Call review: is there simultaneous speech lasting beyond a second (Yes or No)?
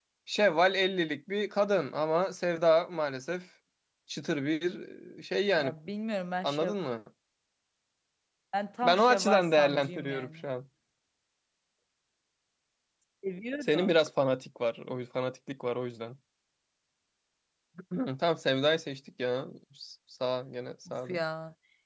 Yes